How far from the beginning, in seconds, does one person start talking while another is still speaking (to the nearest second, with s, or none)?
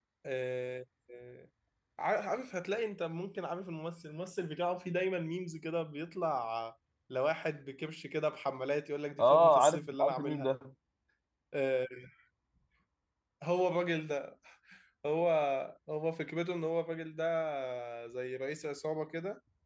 9 s